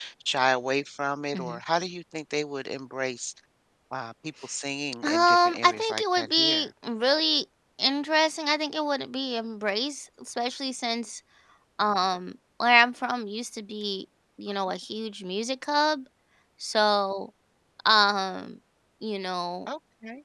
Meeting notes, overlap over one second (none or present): present